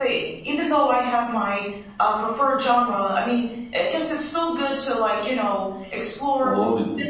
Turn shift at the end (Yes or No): No